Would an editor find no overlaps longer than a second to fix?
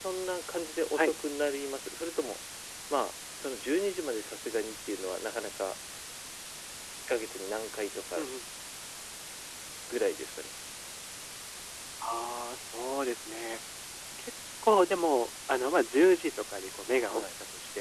Yes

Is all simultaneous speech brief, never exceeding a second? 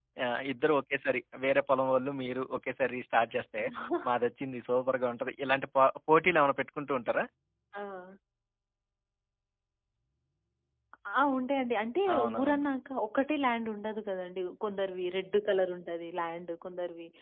Yes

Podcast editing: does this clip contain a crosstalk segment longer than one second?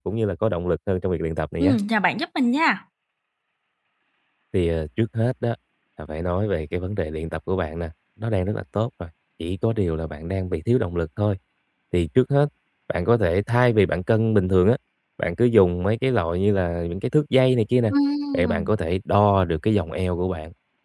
No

